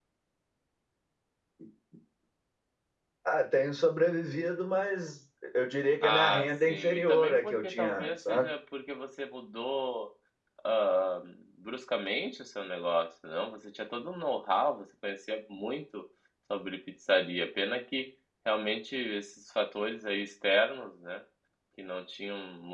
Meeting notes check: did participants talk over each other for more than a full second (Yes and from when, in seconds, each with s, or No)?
Yes, from 6.0 s